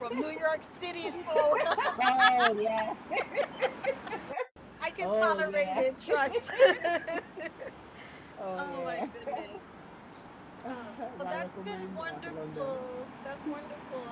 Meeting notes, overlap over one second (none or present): present